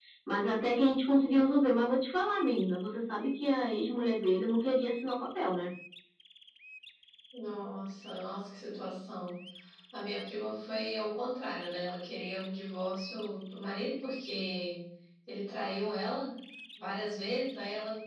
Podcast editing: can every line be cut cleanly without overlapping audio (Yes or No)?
Yes